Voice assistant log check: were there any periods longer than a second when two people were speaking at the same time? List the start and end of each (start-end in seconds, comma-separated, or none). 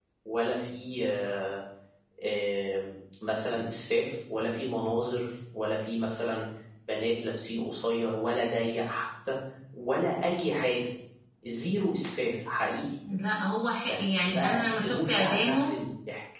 13.9-15.7